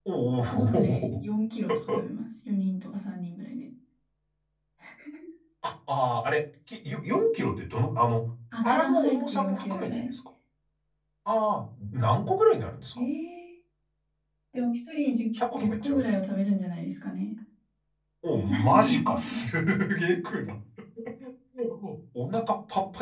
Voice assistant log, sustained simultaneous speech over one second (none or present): present